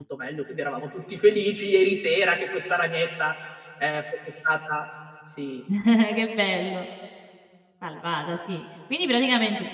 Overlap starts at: none

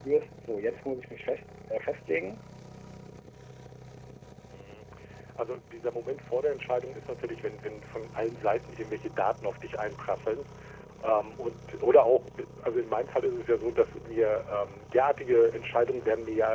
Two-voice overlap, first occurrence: none

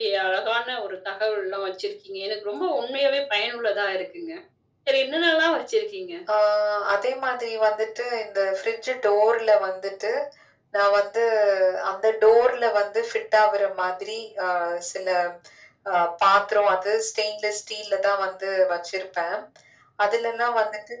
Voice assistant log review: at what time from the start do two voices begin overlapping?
none

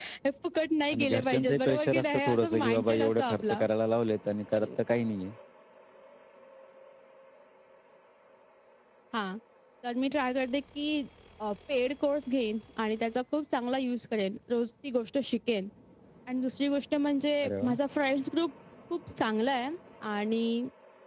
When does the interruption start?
0.9 s

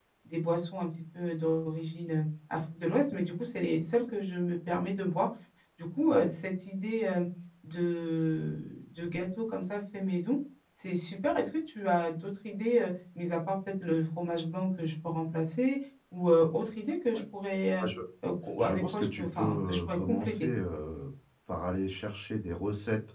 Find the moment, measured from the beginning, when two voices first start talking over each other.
18.6 s

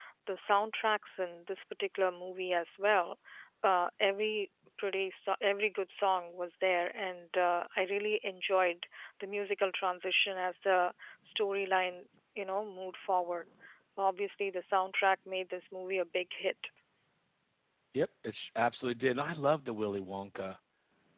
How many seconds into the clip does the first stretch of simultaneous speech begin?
none

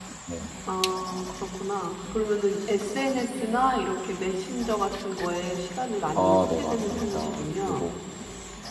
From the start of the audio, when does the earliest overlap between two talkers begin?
6.2 s

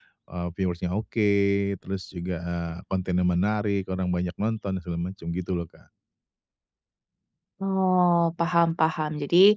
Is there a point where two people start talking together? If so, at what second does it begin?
none

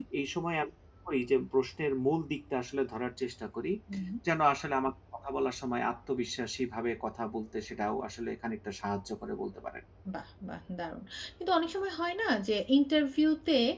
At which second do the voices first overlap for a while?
none

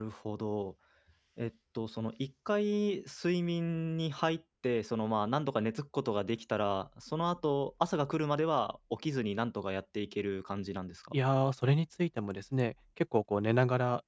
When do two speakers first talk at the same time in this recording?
none

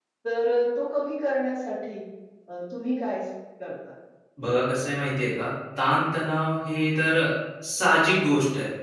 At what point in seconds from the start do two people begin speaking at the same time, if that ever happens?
none

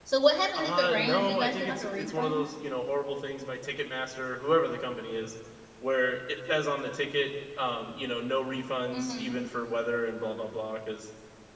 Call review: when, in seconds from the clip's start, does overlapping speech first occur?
0.5 s

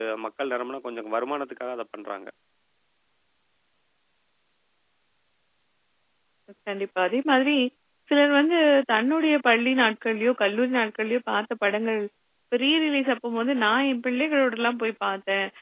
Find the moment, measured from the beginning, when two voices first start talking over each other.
none

